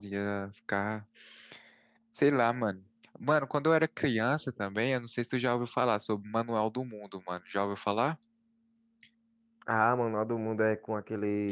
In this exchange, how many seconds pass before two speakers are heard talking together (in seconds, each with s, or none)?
none